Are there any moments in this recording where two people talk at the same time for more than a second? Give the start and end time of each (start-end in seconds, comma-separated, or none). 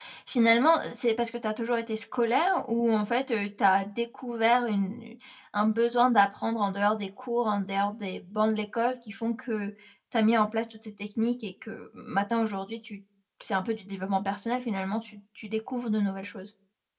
none